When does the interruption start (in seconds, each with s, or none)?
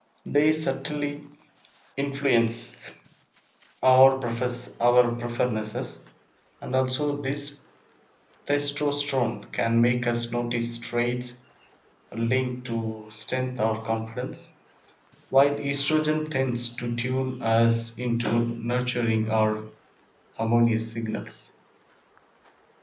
none